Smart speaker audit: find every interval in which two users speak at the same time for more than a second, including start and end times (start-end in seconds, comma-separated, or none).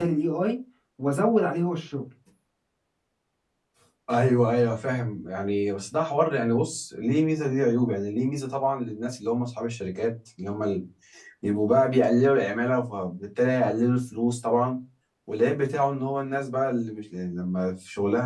none